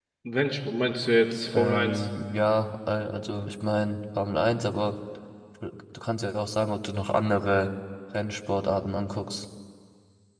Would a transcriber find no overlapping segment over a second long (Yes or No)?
Yes